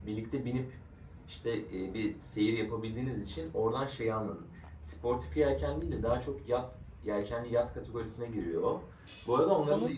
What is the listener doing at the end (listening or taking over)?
listening